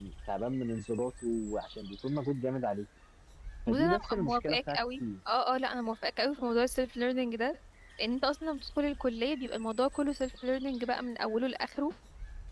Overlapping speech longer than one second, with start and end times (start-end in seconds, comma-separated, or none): 3.7-5.0